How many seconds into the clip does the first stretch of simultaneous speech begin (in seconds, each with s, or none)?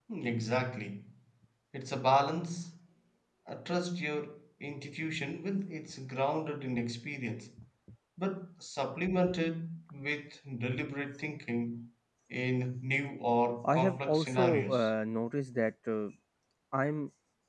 13.6 s